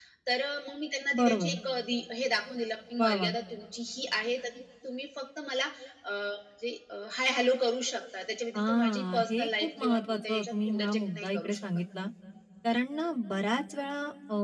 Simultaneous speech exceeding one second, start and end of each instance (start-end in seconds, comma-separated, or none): 8.6-11.6